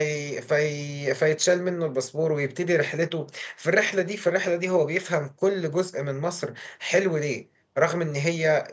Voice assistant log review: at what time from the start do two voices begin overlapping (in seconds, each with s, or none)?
none